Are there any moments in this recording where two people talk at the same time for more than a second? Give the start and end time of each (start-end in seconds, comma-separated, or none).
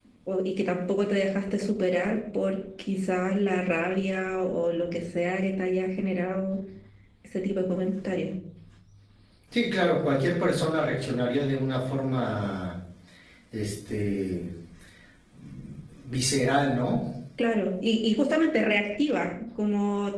none